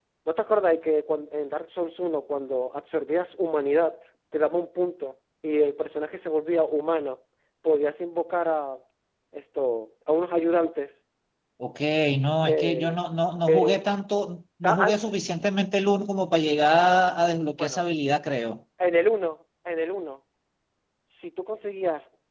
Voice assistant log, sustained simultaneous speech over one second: none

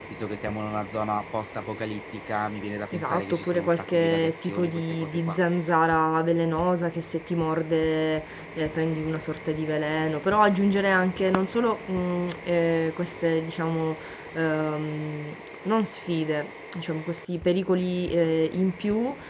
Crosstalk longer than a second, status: present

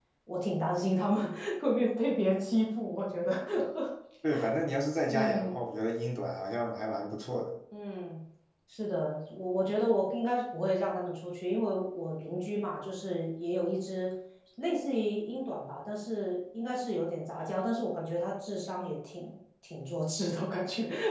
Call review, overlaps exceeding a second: none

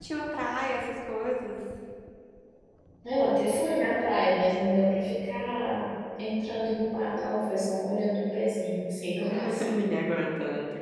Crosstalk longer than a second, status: none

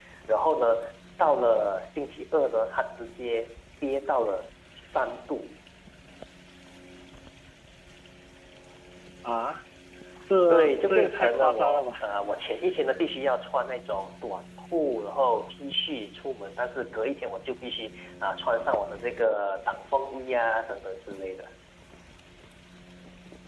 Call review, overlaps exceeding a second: present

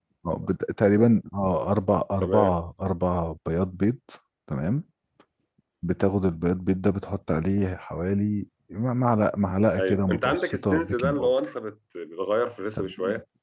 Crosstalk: present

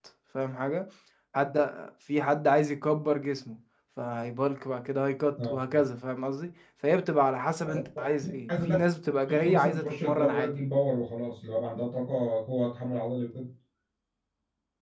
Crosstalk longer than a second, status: present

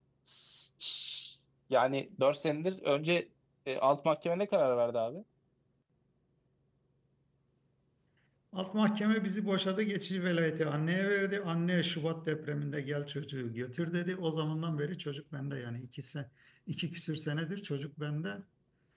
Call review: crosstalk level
none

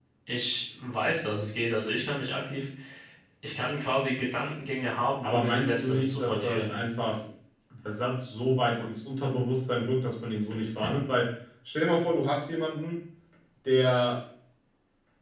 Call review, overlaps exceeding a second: present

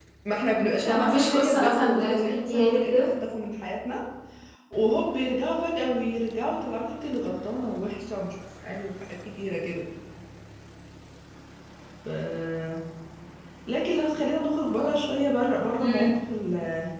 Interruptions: present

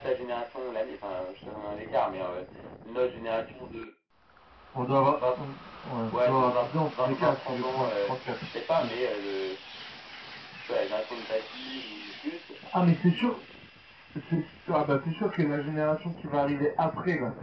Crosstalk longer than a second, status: present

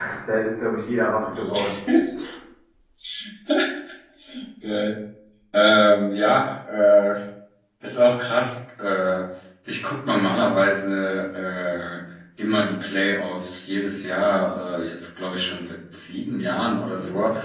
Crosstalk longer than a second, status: none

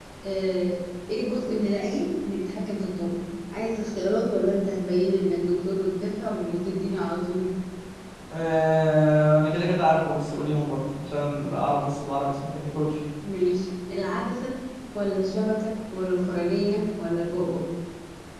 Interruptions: none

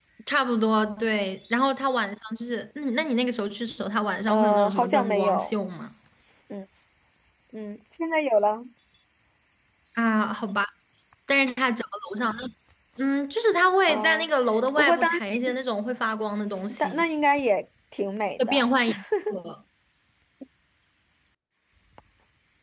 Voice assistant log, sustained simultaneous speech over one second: present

